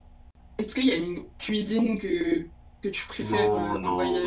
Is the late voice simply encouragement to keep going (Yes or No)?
No